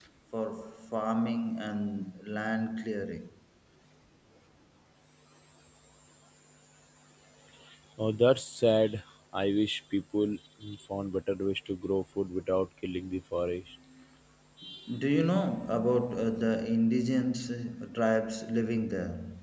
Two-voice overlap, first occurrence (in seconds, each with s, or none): none